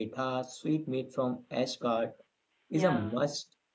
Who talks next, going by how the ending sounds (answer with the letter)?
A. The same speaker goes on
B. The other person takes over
A